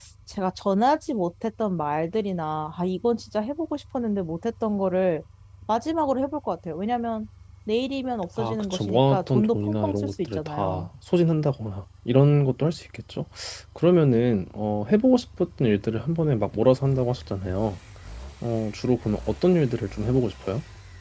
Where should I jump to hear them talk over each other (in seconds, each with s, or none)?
8.4 s